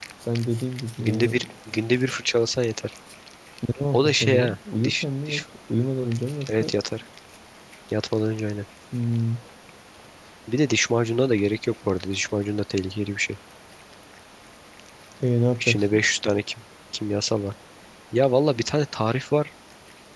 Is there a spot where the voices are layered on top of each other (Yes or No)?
Yes